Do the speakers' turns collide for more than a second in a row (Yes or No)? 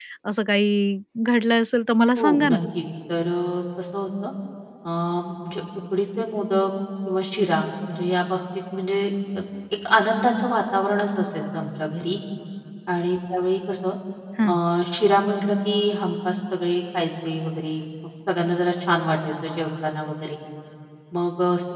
No